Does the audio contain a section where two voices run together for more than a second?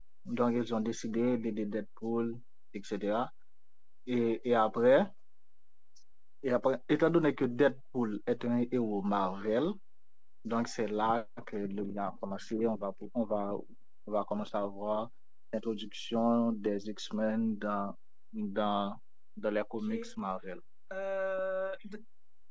No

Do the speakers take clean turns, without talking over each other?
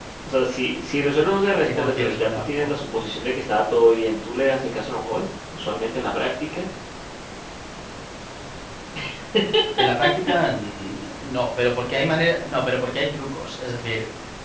No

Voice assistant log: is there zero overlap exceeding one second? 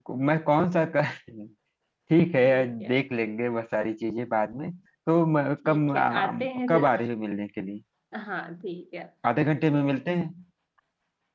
No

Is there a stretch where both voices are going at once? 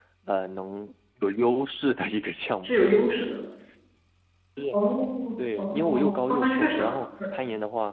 Yes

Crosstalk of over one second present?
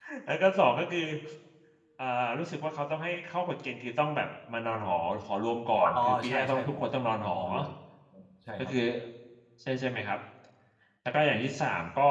Yes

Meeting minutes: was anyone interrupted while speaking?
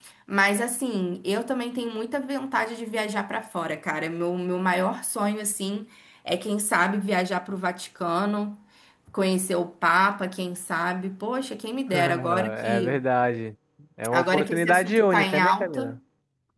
Yes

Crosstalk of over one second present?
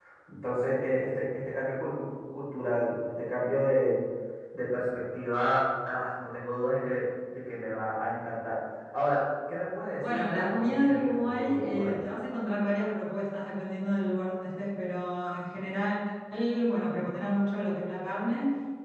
Yes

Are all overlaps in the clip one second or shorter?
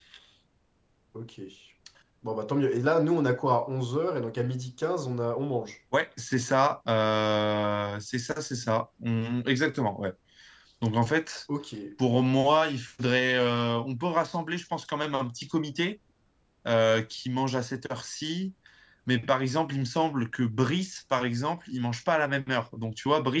Yes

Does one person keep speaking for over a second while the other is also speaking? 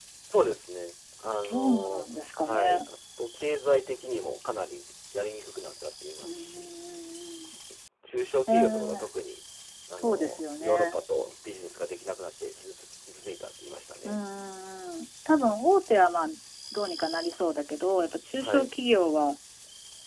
Yes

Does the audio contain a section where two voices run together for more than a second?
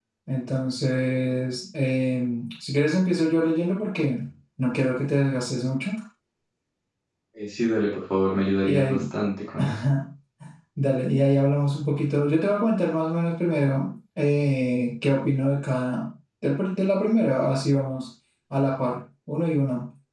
No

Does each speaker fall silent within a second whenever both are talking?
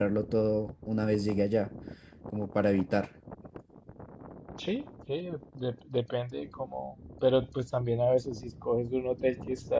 Yes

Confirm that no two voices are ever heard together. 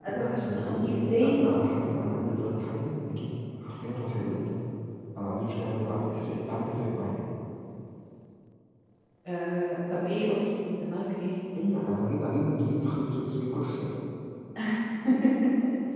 No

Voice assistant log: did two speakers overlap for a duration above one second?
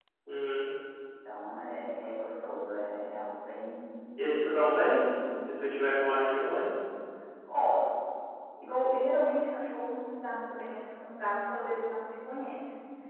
No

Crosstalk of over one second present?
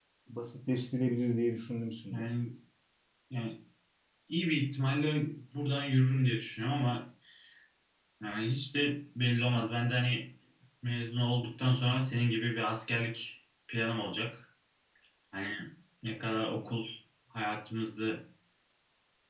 No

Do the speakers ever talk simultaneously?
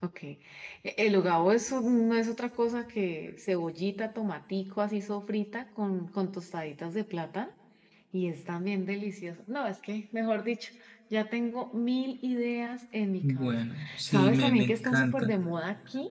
Yes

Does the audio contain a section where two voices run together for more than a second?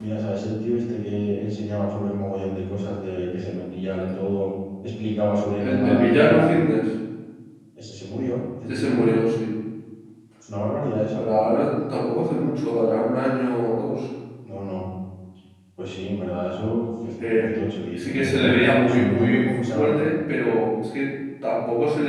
Yes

